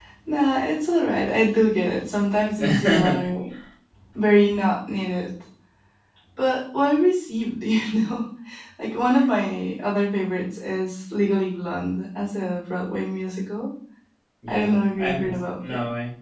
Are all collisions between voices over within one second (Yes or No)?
No